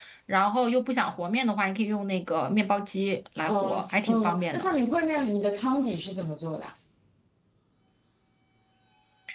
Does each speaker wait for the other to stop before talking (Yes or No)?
No